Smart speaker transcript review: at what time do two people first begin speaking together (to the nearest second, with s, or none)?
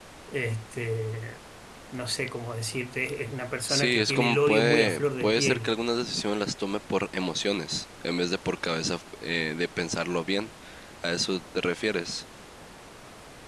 4 s